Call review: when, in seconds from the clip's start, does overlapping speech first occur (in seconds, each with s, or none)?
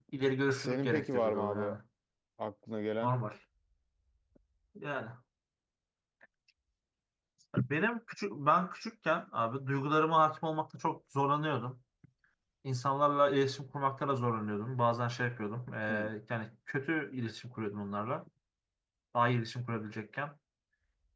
0.5 s